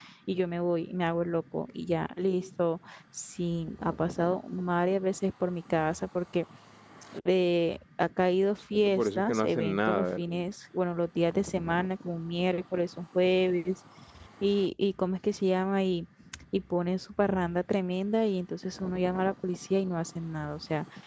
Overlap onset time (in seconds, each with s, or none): 8.7 s